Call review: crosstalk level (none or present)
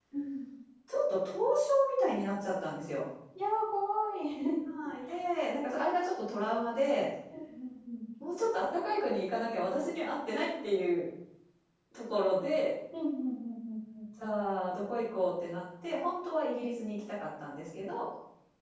none